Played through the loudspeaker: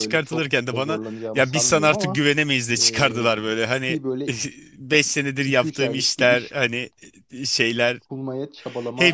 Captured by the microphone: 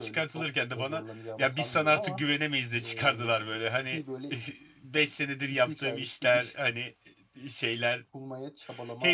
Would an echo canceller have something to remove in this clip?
Yes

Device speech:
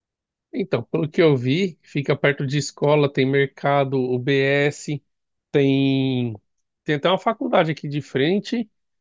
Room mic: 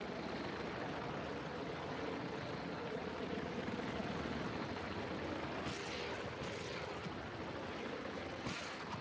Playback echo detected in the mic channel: No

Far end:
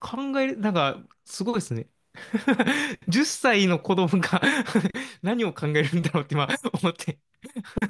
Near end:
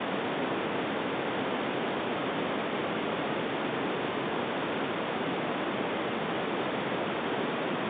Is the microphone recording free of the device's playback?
Yes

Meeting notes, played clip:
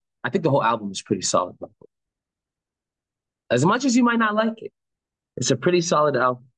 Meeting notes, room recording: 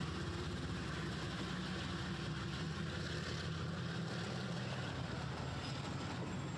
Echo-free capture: Yes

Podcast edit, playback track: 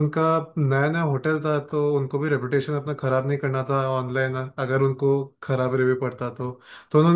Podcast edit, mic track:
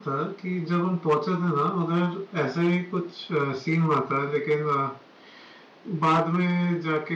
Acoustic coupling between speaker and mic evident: No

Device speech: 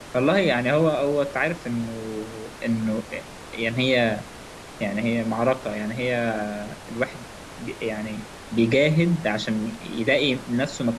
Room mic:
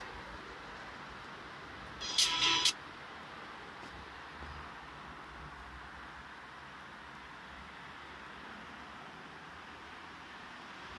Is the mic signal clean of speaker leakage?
Yes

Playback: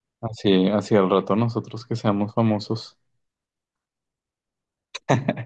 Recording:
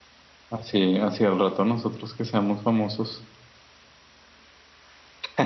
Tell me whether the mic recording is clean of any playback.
No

